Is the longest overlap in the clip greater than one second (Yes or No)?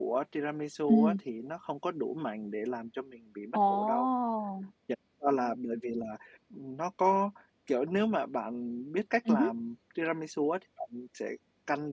No